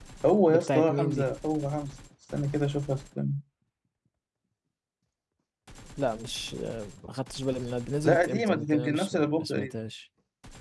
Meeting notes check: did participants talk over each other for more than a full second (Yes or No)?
Yes